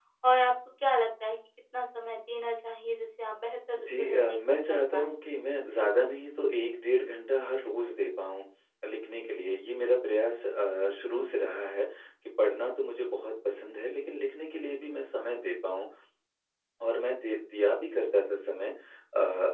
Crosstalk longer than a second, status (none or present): present